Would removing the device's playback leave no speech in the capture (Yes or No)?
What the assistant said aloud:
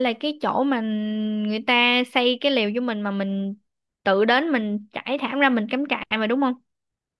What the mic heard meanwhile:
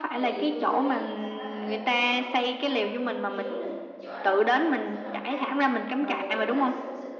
No